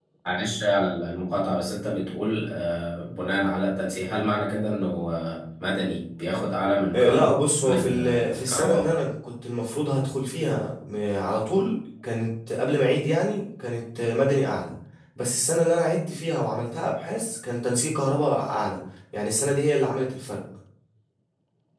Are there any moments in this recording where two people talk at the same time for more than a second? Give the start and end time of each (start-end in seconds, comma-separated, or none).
6.9-8.9